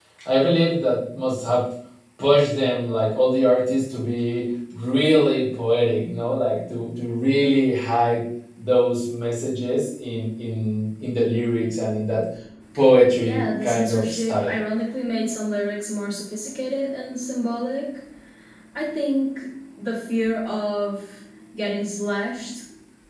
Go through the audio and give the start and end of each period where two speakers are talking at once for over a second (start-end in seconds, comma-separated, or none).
13.2-14.5